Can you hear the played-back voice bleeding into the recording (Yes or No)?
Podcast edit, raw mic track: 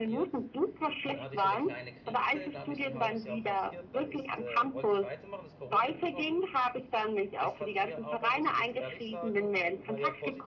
Yes